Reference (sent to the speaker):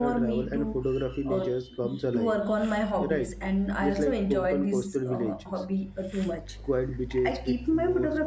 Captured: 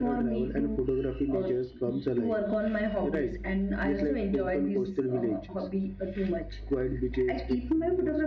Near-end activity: none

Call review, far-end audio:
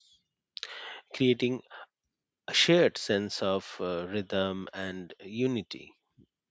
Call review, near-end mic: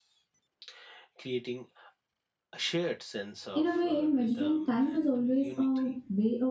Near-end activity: present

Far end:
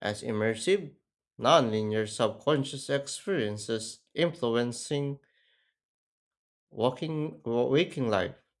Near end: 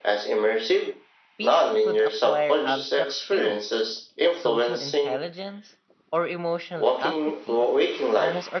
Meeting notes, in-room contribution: present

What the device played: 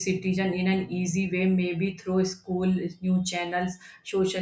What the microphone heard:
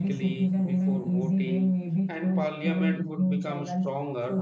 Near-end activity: present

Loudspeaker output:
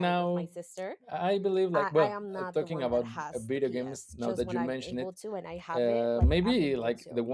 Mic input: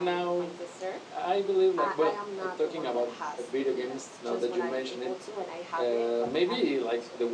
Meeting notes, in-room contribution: none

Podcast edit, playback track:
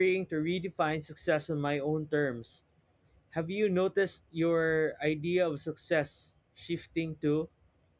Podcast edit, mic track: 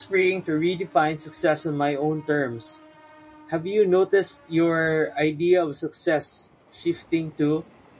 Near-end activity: none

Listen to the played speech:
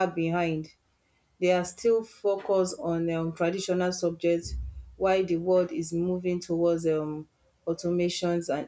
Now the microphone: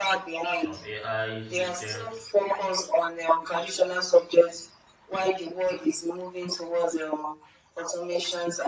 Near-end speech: present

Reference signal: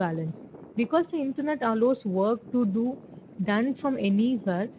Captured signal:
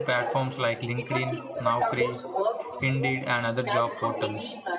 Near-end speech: present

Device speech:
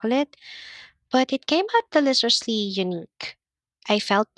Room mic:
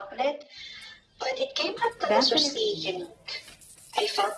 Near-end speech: present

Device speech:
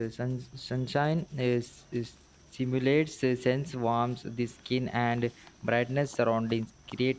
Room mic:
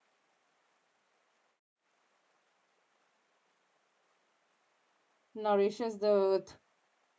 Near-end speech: present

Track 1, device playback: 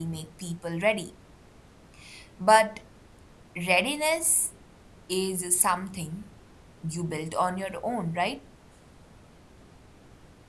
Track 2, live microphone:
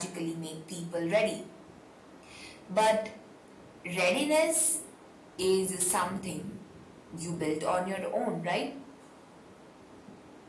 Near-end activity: none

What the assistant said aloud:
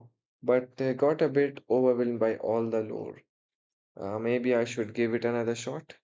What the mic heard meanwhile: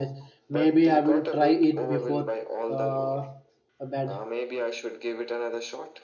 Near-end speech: present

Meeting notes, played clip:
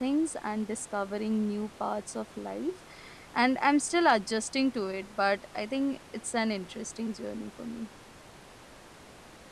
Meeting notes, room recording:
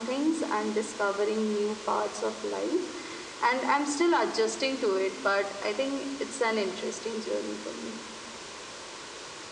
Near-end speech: none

